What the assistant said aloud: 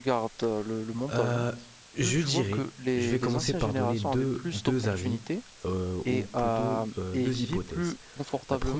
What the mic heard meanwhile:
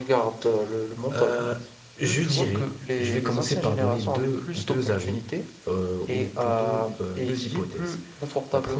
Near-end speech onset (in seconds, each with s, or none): none